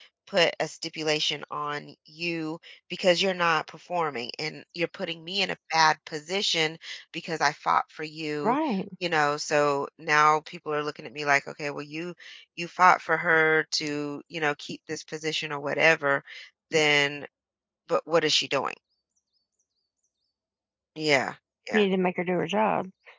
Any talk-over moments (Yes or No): No